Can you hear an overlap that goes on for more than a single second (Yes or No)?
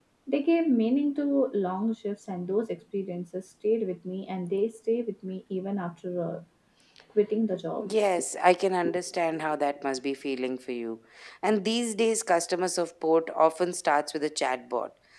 No